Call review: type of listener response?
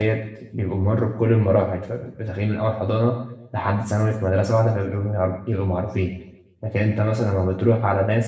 listening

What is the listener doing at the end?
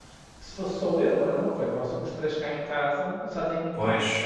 taking over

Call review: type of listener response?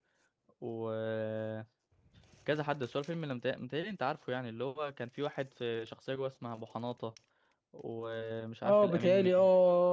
taking over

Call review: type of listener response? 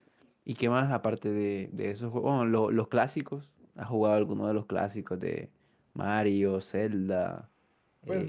taking over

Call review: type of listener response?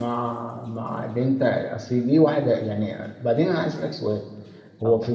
listening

